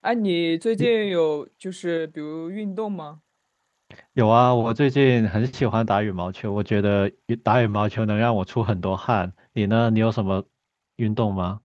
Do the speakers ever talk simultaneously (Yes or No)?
No